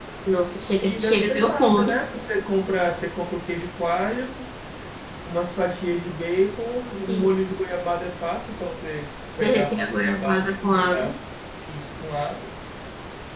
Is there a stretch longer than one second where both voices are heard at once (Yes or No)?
Yes